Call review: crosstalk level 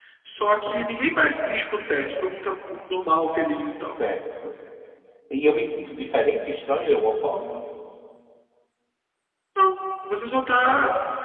none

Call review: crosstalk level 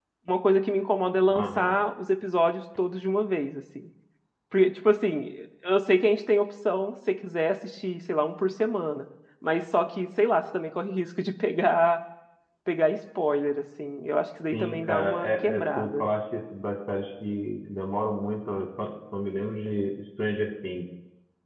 present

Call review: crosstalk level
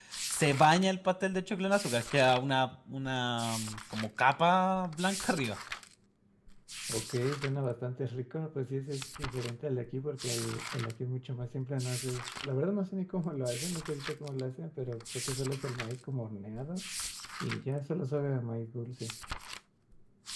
none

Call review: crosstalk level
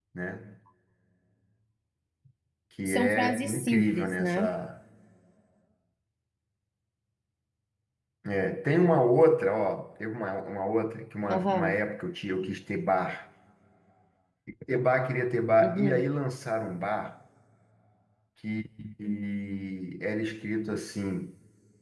present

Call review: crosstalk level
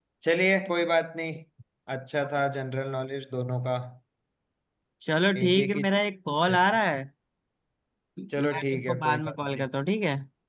present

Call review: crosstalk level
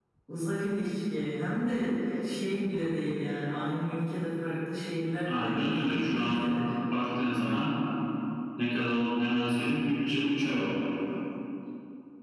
present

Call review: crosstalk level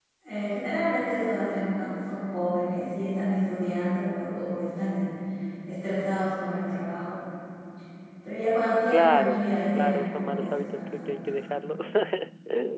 present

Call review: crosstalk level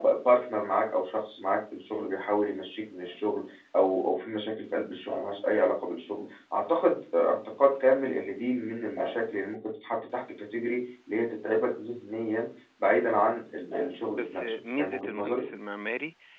present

